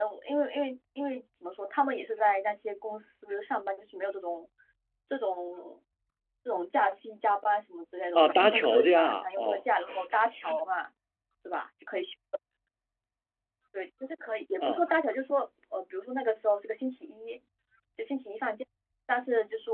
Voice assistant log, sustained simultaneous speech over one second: present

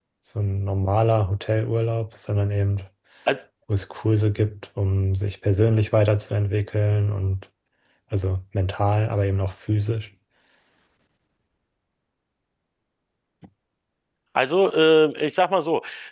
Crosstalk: none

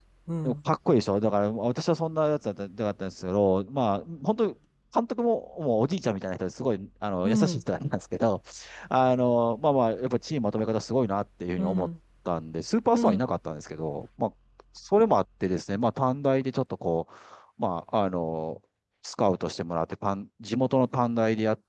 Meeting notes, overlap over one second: none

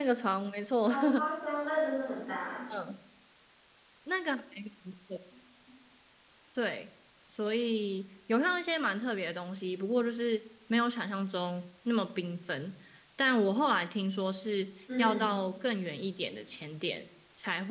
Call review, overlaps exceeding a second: none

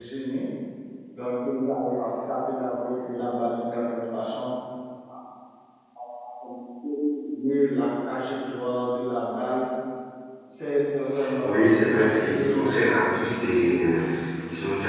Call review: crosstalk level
present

